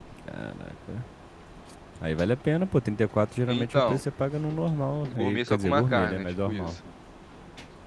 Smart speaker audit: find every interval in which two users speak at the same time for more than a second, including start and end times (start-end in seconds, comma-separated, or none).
5.1-6.7